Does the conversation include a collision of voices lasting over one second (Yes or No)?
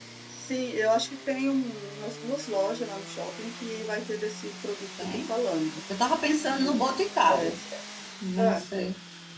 No